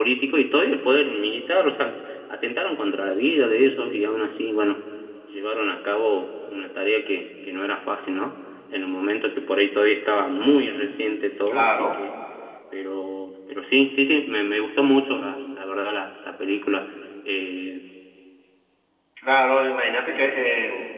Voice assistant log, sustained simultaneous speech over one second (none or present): none